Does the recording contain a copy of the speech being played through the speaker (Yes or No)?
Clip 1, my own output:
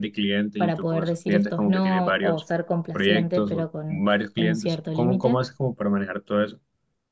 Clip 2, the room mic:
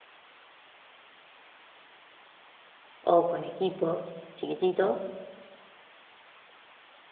No